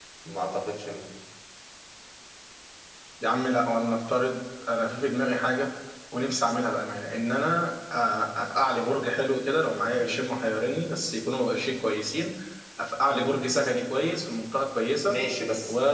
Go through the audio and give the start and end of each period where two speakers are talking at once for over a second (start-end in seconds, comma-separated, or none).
none